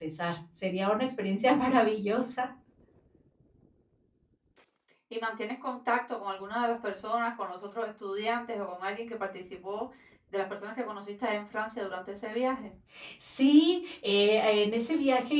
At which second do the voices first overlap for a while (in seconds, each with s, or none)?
none